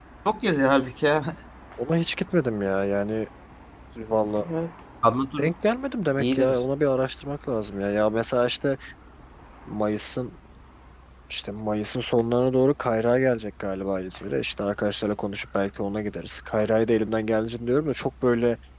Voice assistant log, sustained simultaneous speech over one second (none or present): none